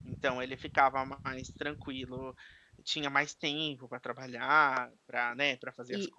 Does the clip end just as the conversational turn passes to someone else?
No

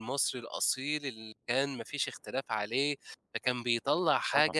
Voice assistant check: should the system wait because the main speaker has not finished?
Yes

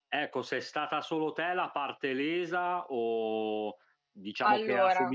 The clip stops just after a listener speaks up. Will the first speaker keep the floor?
Yes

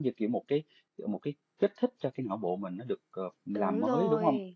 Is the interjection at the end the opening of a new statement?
Yes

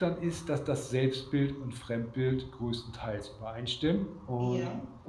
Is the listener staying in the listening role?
Yes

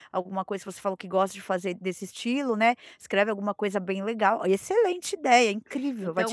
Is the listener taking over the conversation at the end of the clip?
Yes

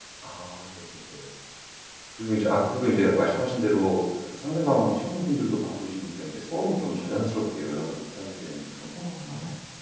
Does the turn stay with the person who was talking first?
No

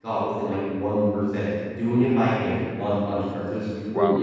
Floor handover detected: No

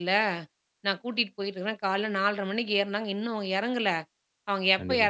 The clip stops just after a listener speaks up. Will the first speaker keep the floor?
Yes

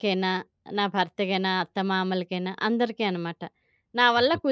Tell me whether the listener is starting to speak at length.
No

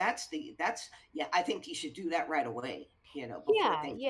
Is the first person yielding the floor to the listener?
Yes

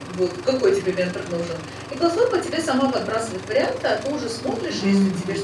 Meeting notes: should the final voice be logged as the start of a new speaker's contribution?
No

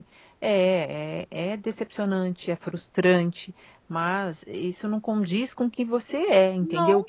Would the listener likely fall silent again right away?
Yes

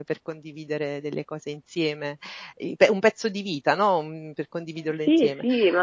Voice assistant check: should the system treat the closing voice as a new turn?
Yes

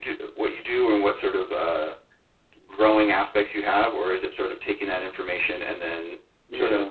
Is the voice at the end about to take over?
No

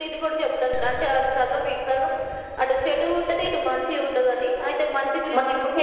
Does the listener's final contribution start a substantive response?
Yes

